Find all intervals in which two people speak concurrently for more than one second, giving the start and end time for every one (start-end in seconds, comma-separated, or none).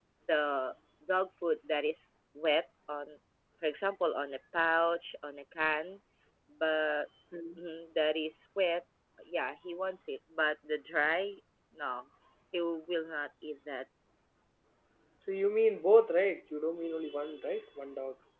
none